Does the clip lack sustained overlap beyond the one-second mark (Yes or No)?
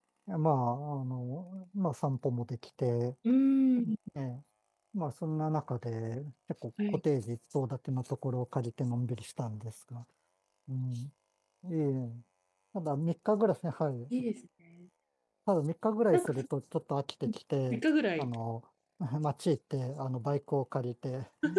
Yes